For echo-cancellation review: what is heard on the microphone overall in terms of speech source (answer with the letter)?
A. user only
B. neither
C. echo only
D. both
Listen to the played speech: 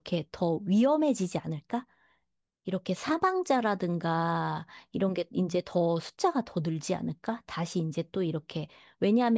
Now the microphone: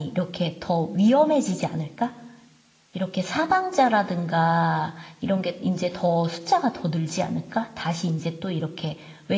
C